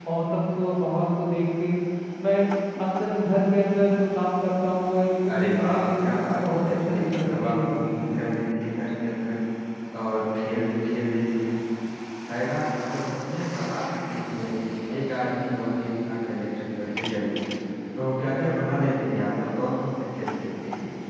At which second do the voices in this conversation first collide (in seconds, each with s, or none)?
5.3 s